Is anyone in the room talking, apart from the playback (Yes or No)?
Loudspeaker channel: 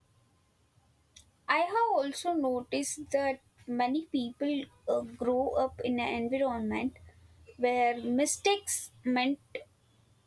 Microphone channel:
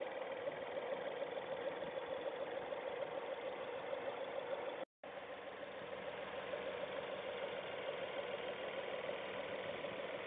No